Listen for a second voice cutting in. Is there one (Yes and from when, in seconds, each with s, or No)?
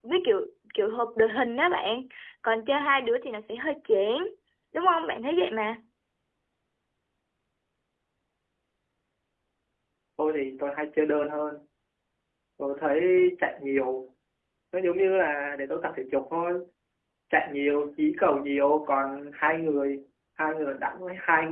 No